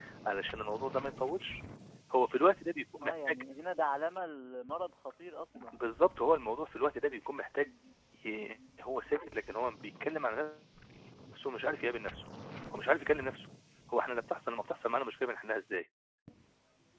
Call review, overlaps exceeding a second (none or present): none